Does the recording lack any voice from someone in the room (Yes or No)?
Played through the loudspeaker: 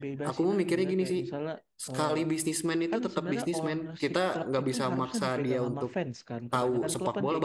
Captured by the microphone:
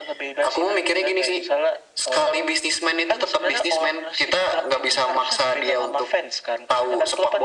Yes